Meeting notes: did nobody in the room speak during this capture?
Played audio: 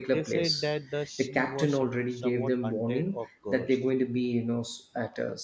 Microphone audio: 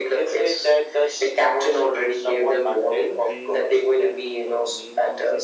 No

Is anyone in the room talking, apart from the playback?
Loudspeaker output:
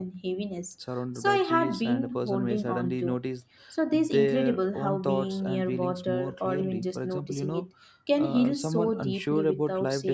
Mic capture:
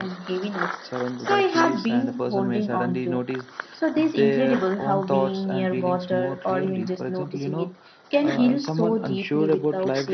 No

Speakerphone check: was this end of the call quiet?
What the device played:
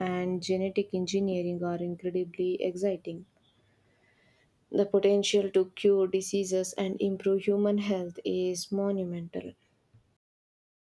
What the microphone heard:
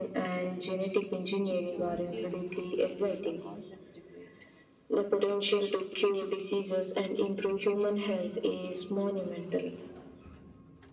No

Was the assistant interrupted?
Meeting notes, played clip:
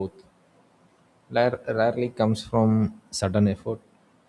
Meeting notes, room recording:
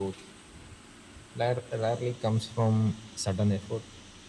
No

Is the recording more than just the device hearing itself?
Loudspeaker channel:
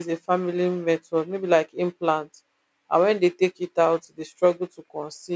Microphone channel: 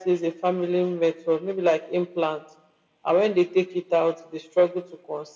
No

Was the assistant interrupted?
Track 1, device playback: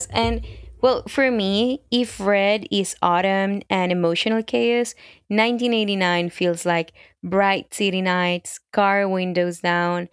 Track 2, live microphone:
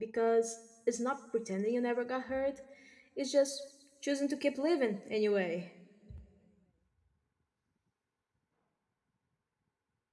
Yes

